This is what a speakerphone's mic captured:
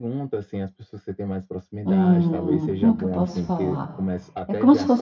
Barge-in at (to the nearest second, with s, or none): 2 s